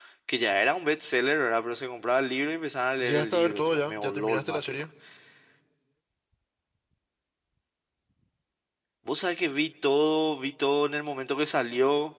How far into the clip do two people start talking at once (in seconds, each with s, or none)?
3.0 s